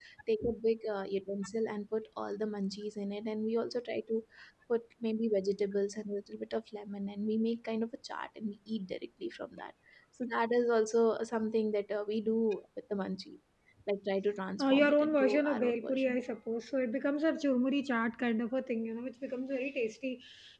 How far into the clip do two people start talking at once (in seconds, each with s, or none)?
14.6 s